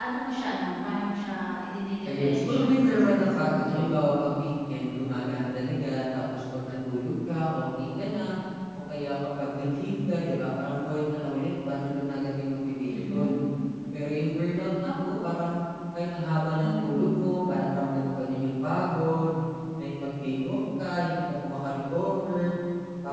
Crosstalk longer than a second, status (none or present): present